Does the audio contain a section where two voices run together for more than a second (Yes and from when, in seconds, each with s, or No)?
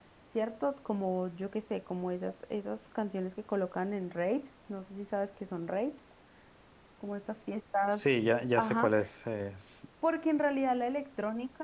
No